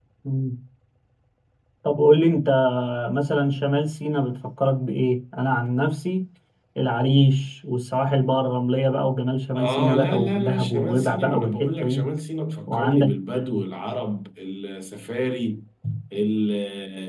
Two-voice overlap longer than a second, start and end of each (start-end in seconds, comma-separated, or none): 9.5-12.1